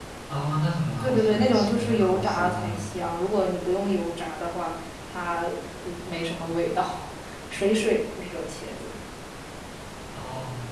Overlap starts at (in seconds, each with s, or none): 1.0 s